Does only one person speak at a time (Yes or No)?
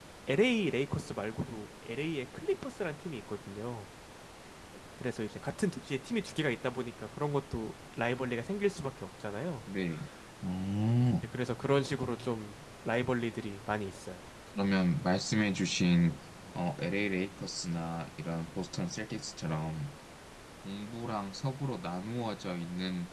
Yes